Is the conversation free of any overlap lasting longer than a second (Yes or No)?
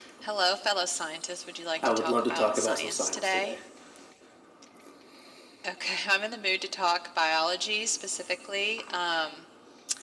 No